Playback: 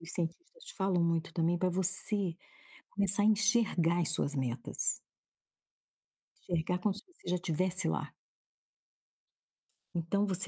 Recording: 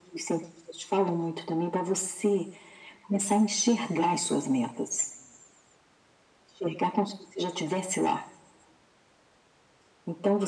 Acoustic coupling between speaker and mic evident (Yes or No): Yes